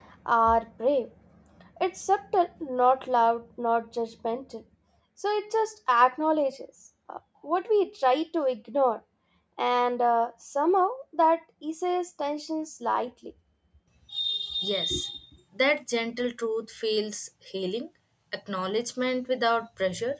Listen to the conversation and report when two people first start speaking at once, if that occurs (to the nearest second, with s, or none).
none